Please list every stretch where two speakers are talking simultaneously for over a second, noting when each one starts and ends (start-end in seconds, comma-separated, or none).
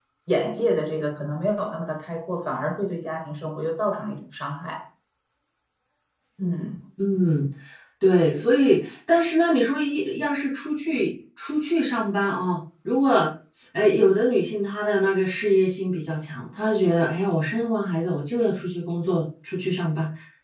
none